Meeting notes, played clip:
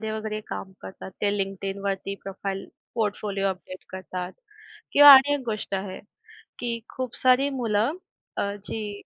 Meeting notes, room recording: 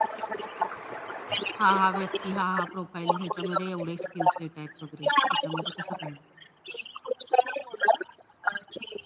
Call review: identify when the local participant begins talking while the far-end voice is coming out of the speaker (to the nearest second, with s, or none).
2 s